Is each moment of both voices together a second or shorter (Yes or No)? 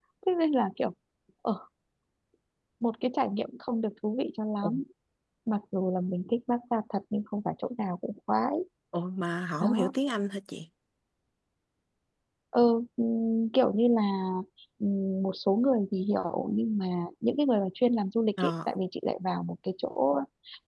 Yes